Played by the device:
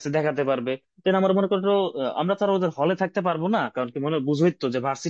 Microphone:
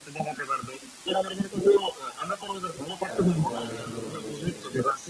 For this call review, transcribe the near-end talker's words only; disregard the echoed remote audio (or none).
কারণ ও আগে সুন্দরবন গেছে